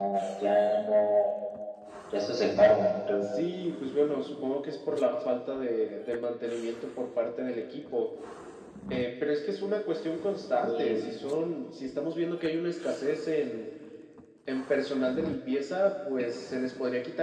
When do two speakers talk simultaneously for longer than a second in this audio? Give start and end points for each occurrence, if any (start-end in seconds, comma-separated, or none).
none